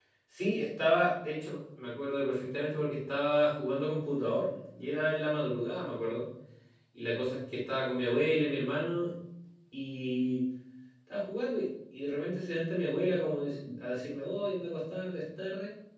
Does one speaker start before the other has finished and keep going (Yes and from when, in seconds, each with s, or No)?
No